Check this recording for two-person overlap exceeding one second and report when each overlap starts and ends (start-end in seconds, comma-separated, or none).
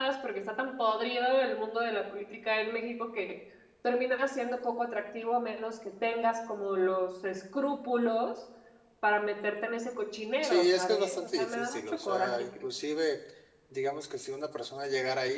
10.4-12.6